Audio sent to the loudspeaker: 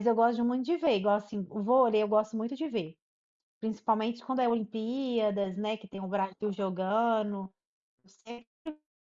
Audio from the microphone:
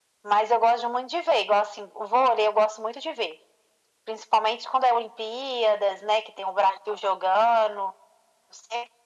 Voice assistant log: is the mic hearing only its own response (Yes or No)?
Yes